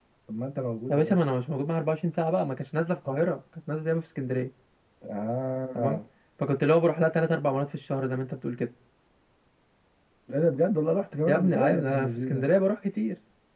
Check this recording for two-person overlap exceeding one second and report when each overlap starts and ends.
11.3-12.5

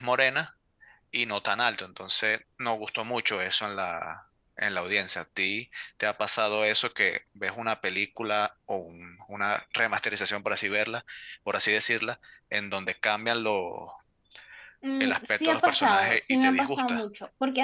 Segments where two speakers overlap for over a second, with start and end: 15.0-17.0

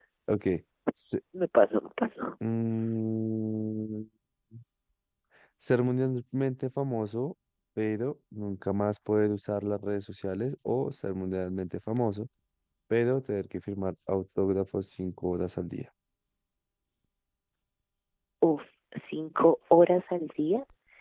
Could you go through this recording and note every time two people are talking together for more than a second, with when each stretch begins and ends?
none

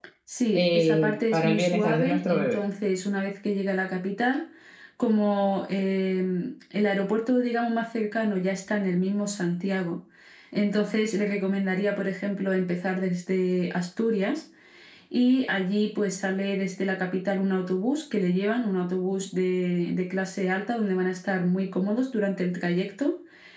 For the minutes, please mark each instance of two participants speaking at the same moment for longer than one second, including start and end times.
0.5-2.6

